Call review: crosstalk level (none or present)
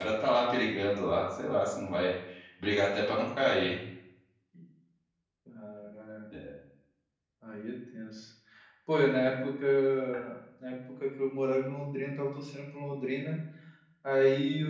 none